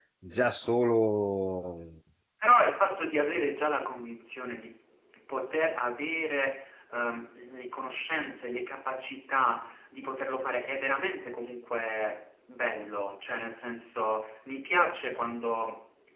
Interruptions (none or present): none